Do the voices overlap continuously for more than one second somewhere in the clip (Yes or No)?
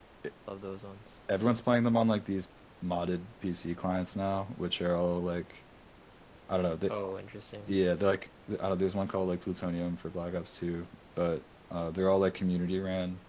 No